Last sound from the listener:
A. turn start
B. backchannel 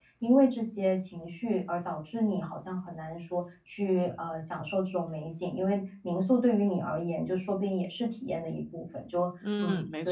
A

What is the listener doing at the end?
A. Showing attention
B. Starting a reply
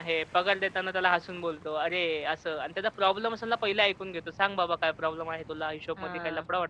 A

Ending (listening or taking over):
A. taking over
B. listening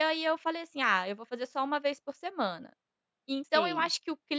B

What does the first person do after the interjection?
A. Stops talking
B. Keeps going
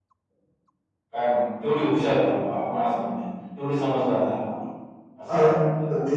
A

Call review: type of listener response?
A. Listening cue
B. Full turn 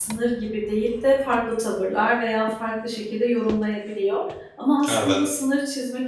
A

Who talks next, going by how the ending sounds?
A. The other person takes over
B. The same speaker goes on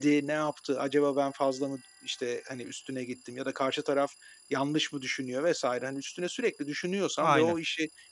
B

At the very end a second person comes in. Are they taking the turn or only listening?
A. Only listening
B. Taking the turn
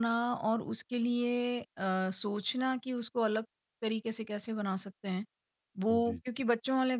A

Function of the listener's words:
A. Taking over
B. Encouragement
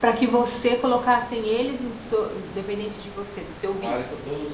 A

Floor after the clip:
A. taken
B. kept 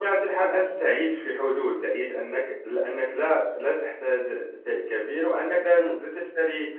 B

